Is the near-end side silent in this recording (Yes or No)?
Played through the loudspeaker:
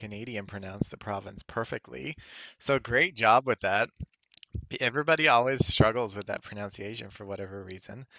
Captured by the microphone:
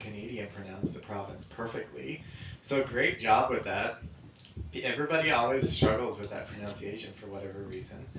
Yes